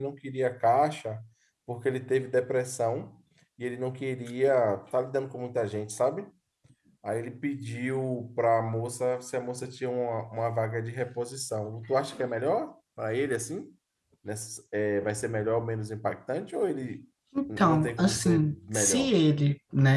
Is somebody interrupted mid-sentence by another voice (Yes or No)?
Yes